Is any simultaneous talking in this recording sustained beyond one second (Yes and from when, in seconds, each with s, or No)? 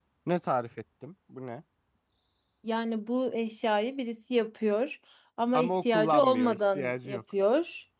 Yes, from 5.5 s